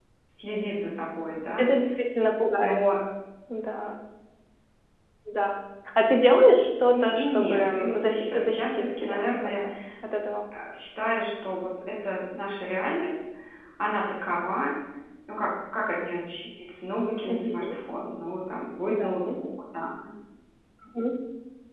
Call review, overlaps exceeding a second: present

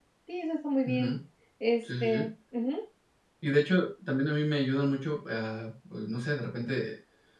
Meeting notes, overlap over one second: none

